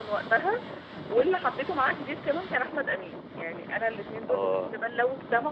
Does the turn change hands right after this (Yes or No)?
No